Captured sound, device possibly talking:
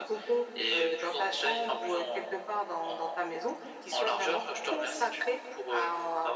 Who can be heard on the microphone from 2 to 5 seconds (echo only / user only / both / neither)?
echo only